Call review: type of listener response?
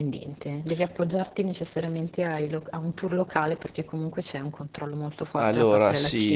taking over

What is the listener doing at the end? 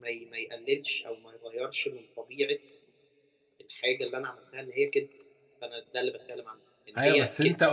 taking over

